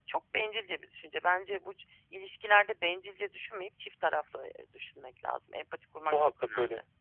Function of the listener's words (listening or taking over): taking over